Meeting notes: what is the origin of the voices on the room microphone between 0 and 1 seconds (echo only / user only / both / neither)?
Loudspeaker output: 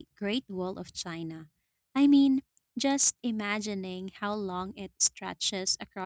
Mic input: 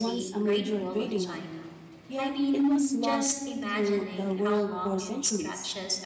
both